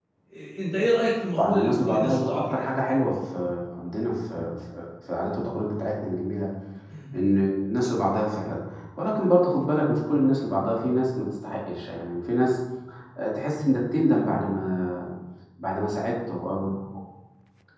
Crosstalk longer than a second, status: present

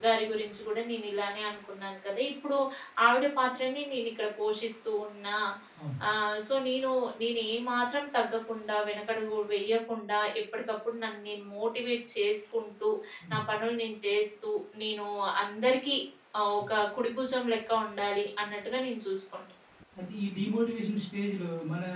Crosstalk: none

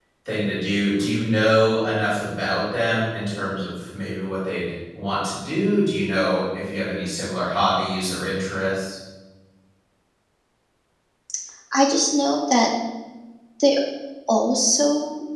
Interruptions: none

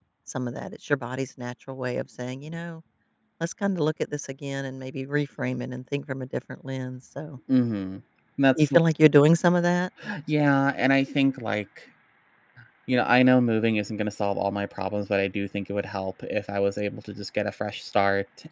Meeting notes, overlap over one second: none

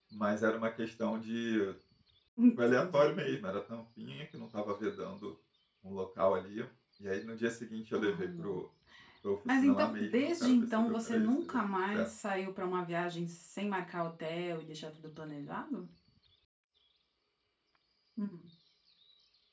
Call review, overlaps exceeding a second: present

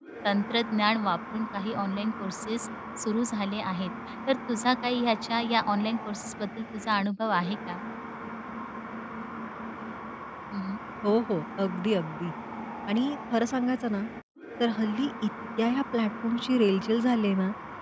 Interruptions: none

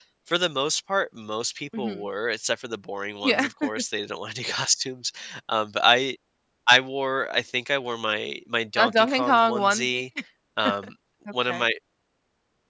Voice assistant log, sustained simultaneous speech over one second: present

